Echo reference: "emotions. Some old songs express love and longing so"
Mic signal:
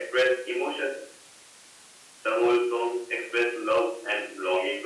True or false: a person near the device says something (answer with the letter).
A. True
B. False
B